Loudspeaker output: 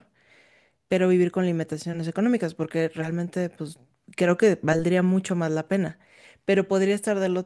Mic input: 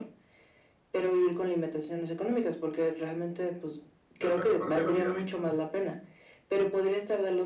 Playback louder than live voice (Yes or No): Yes